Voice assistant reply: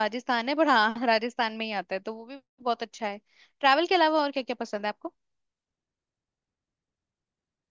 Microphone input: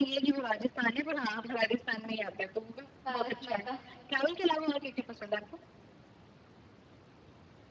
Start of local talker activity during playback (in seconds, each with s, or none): 3.0 s